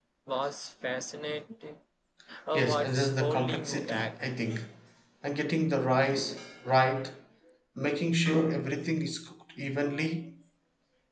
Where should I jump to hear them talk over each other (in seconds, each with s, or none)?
2.5 s